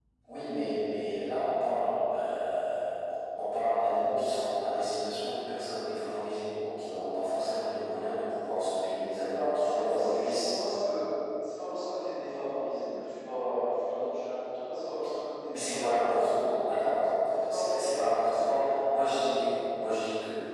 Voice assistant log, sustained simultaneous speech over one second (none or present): present